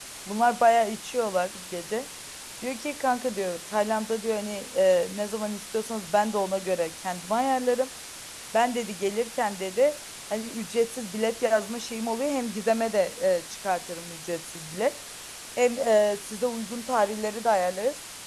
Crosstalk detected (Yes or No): No